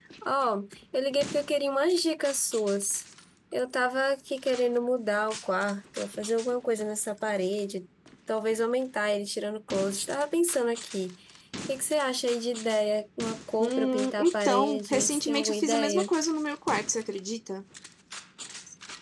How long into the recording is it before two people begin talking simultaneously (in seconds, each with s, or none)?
13.6 s